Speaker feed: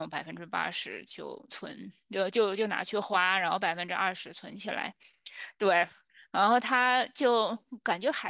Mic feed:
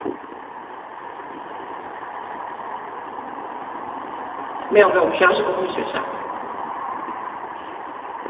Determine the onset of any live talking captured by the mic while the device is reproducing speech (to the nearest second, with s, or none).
5 s